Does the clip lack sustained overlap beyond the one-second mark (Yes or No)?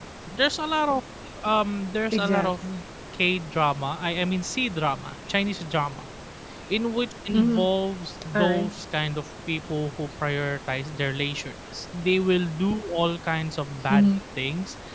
Yes